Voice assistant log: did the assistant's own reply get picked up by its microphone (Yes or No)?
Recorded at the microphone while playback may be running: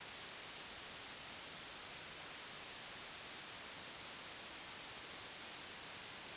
No